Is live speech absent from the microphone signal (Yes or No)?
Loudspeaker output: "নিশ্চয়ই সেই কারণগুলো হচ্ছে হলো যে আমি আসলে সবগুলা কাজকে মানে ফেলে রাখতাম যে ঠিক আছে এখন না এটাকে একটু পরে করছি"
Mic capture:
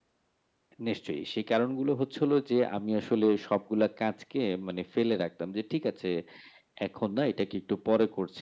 Yes